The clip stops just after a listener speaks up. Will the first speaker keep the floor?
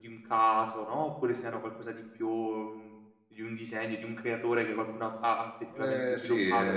No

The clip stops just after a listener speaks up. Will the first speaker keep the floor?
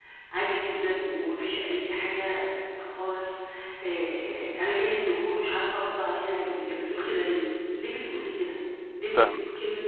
Yes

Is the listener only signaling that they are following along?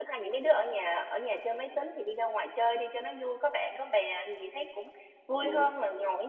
Yes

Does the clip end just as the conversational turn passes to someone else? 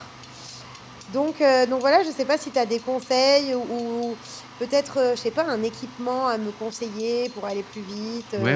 Yes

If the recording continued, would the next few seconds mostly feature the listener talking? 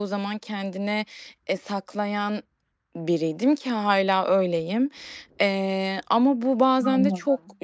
No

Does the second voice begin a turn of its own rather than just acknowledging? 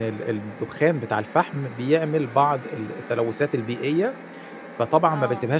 No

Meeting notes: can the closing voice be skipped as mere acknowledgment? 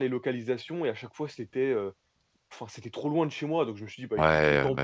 No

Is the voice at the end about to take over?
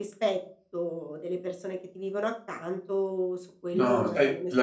Yes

